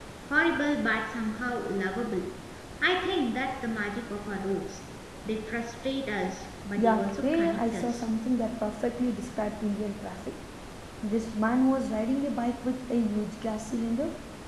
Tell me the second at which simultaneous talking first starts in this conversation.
7 s

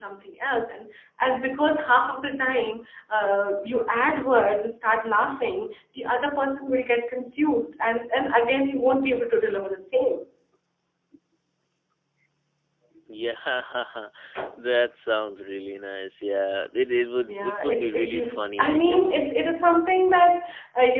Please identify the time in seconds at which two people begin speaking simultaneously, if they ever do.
17 s

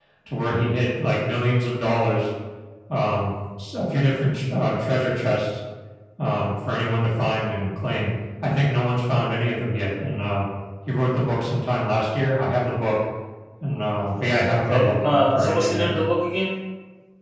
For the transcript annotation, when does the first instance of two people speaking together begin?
15 s

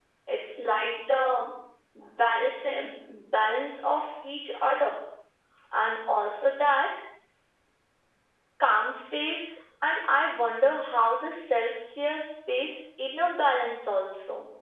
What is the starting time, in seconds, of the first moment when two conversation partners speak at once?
none

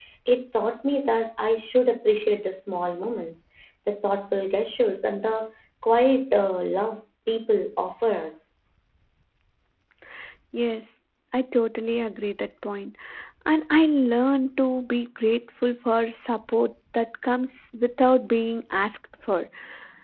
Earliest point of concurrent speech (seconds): none

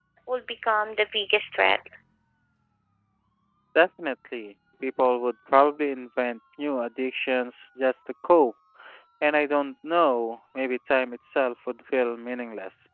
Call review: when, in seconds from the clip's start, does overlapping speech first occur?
none

